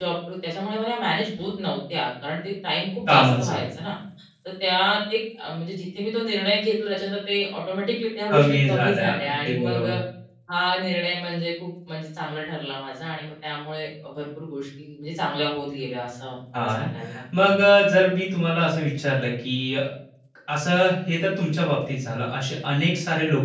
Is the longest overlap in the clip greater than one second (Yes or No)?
Yes